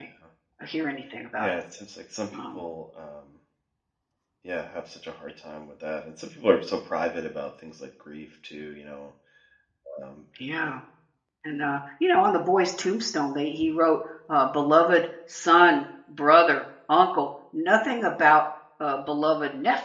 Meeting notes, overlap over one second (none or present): none